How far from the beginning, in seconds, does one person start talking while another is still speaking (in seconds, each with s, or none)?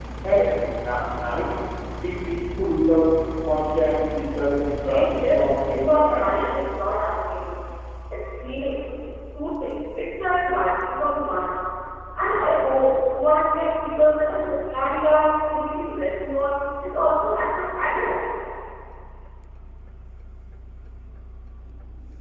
4.8 s